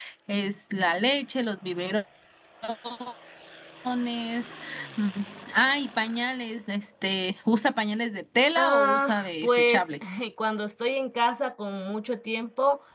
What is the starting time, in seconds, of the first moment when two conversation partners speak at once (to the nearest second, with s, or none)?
9 s